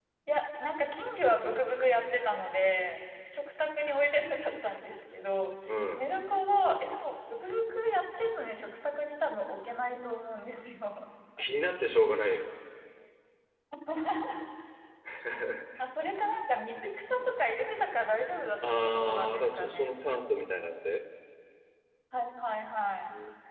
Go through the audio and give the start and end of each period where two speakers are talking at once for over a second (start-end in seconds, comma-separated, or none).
18.7-19.9